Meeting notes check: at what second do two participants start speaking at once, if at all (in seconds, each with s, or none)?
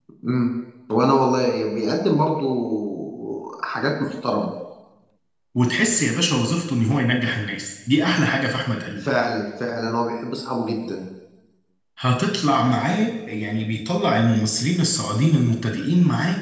none